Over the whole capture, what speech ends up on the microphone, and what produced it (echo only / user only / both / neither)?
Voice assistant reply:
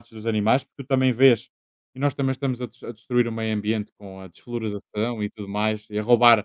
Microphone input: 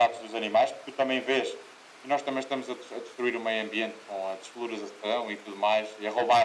echo only